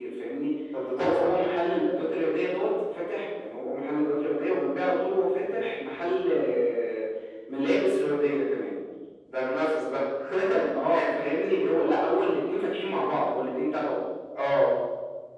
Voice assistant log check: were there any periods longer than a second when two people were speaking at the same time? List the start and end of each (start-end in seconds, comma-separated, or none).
none